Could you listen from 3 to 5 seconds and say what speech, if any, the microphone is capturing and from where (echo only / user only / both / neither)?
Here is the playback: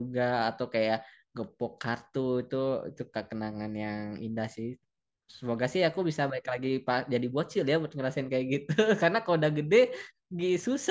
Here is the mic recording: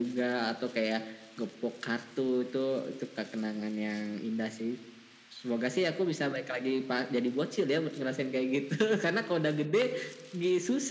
echo only